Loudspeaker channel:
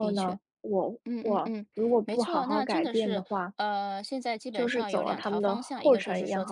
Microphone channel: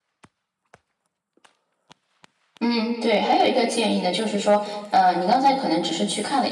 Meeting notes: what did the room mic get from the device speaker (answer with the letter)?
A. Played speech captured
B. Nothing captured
B